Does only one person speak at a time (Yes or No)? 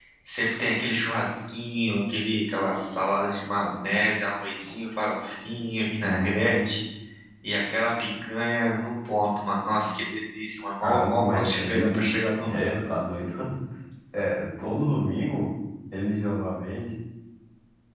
No